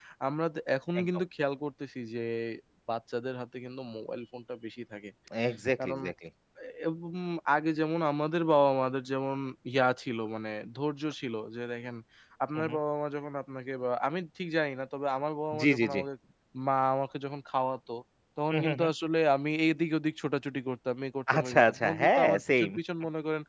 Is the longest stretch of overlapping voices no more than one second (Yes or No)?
No